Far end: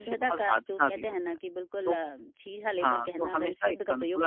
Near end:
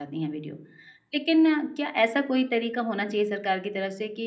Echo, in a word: none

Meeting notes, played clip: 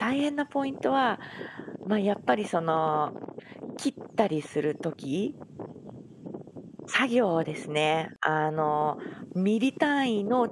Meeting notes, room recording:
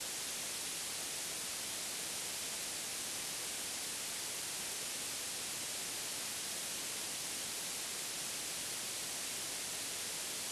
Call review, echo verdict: none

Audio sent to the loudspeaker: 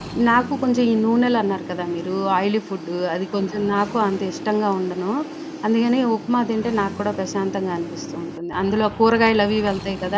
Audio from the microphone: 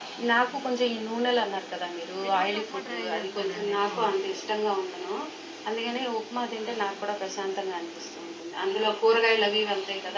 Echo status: present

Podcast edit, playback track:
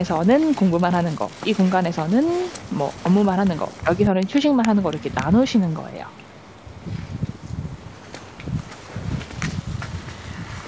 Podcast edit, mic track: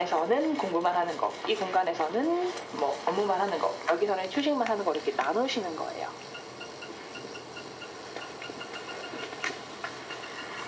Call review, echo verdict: present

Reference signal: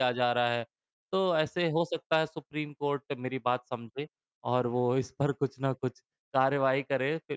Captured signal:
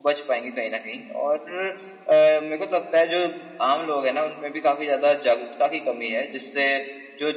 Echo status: none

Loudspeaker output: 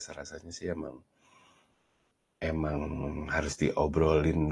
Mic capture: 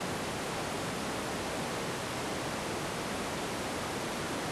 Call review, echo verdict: none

